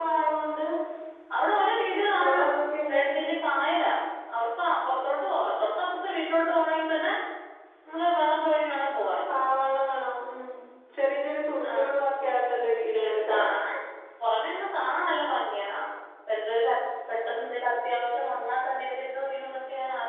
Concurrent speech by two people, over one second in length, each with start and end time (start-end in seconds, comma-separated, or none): none